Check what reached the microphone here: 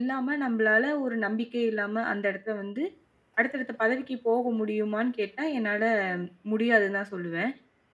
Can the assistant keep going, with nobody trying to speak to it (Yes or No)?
Yes